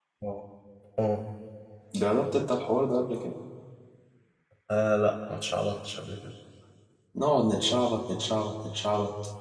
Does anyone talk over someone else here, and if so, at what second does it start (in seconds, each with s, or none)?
none